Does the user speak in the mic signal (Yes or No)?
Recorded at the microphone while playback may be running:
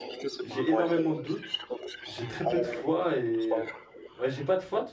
Yes